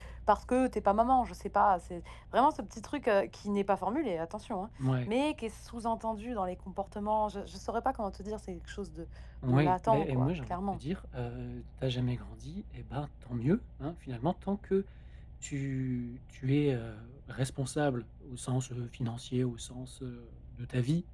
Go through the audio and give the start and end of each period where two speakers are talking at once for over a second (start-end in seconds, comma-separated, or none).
9.5-10.8